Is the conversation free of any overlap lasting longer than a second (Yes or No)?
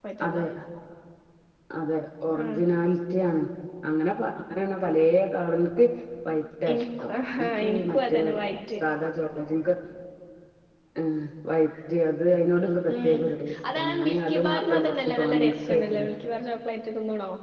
No